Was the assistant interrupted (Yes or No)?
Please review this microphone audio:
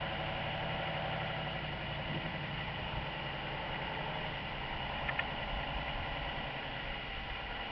No